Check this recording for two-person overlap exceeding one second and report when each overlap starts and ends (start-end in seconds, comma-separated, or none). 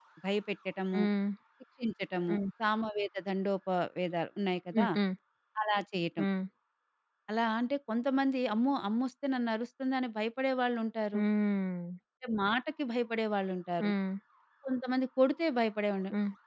none